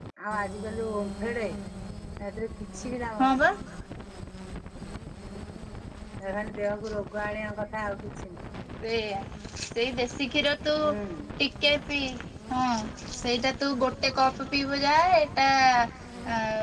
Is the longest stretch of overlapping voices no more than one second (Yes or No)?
Yes